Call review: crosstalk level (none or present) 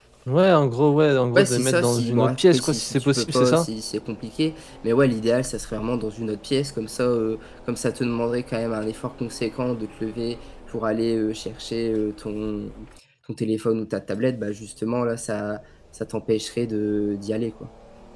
present